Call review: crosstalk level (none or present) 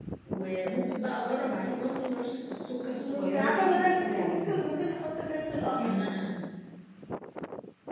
present